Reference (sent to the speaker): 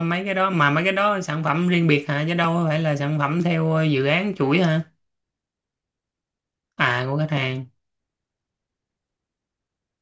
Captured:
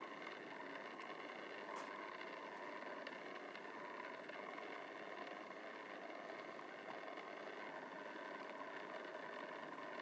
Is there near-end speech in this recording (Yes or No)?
No